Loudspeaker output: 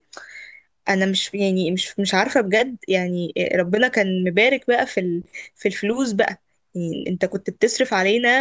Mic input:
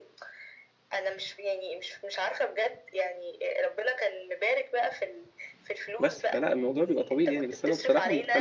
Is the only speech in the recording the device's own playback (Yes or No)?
No